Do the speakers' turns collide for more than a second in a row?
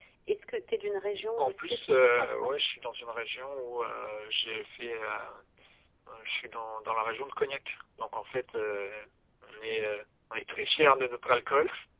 Yes, from 1.4 s

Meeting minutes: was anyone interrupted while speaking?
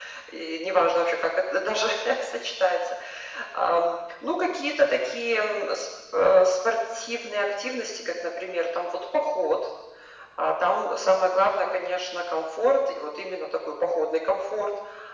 No

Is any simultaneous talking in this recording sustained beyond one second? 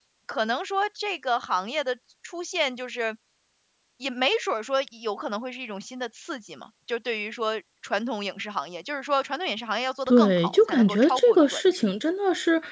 Yes, from 10.1 s

